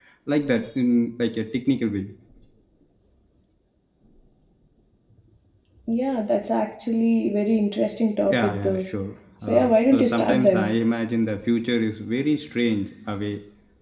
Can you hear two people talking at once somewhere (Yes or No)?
Yes